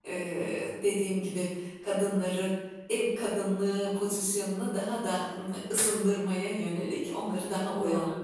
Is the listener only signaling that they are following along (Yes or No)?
Yes